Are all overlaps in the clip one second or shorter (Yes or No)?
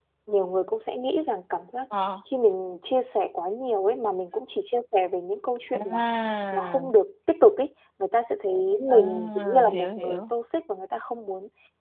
No